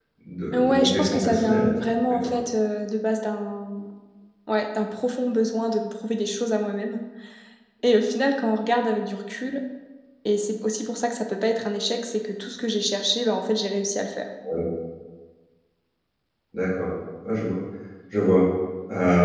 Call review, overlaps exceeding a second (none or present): present